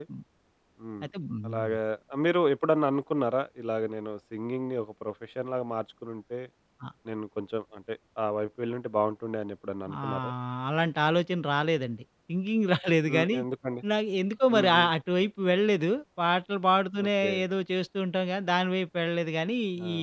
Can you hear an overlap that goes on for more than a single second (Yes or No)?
No